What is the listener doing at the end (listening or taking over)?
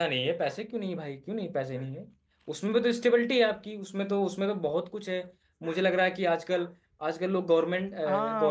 taking over